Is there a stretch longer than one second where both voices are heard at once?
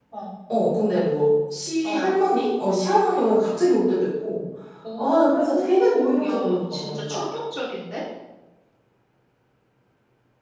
Yes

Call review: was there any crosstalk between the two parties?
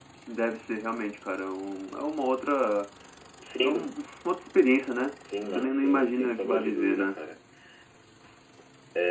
Yes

